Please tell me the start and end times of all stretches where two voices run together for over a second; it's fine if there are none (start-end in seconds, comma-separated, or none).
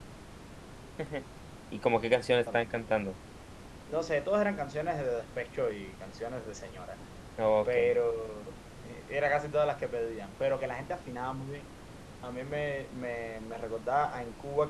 none